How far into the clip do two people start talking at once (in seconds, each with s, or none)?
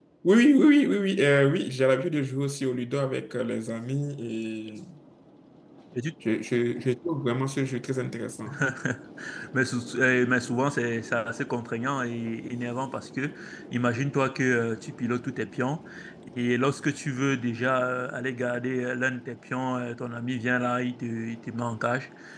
none